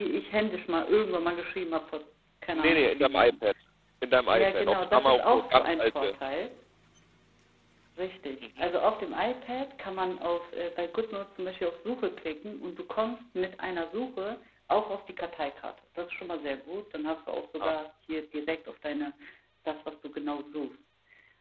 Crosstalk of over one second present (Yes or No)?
Yes